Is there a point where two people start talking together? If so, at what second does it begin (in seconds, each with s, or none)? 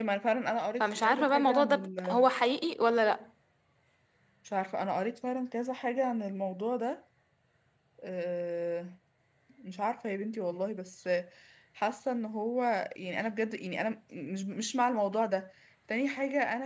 0.8 s